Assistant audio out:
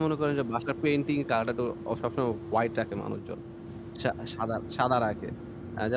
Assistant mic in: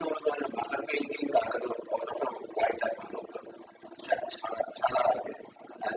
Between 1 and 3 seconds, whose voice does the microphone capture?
echo only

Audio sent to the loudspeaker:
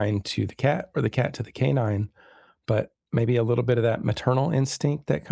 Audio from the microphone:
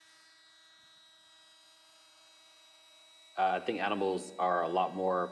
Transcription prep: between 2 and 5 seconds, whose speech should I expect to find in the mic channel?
user only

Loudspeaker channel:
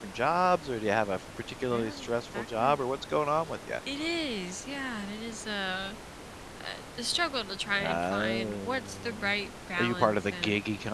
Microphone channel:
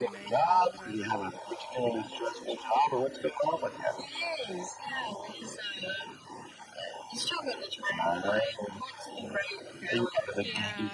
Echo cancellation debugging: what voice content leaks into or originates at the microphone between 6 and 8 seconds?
echo only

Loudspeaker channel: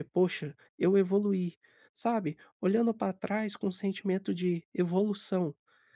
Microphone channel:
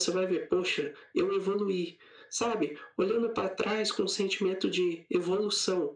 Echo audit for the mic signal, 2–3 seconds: echo only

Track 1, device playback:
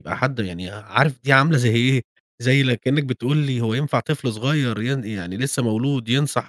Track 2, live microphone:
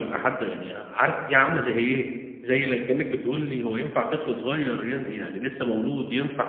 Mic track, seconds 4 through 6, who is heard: echo only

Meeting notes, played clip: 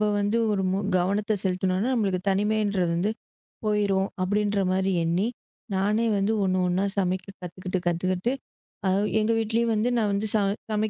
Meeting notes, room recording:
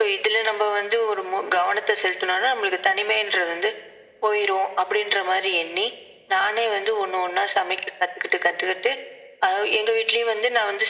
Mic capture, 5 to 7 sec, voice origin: echo only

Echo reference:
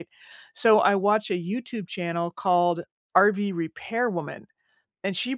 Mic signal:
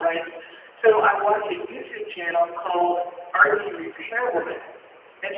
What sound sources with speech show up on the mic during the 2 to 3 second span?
echo only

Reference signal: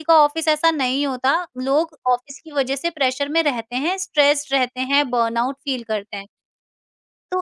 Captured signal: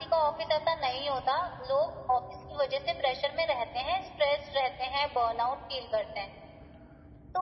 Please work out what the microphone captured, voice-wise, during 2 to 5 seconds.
echo only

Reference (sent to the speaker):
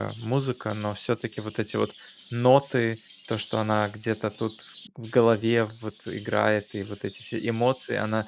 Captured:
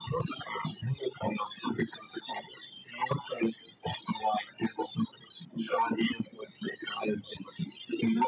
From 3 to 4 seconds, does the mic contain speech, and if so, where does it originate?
echo only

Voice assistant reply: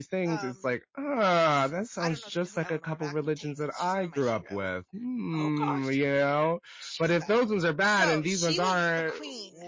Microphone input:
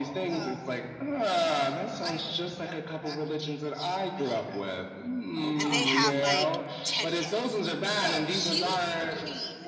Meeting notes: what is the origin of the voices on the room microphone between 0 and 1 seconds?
echo only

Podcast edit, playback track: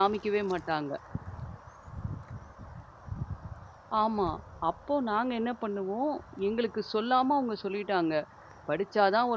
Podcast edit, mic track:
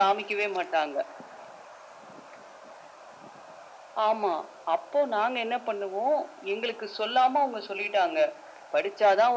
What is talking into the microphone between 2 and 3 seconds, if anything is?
neither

